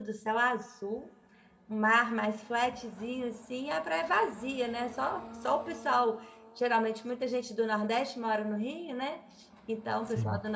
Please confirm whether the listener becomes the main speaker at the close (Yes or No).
No